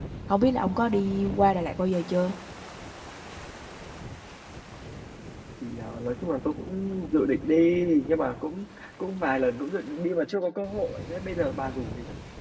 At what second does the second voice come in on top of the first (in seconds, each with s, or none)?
none